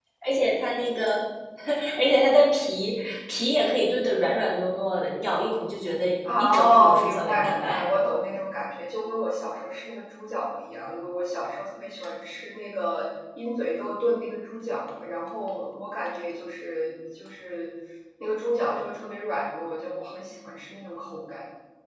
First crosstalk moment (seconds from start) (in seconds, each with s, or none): 6.2 s